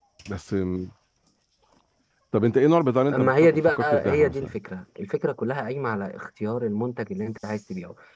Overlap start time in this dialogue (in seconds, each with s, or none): 3.1 s